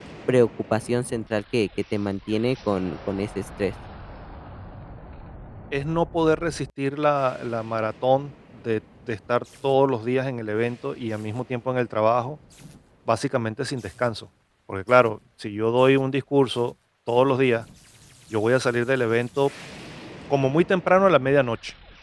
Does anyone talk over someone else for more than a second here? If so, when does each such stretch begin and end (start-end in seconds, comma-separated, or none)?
none